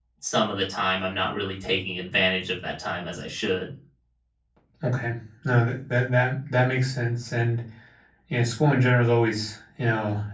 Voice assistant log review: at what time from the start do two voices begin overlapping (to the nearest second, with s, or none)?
none